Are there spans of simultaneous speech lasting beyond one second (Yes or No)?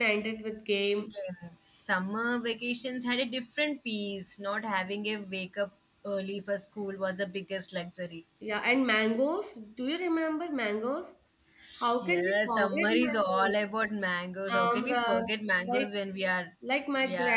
Yes